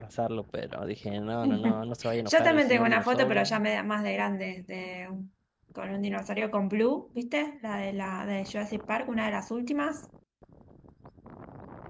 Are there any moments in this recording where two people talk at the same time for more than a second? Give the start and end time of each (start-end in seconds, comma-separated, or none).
2.2-3.5